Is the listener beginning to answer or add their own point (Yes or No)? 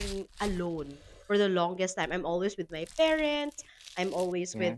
No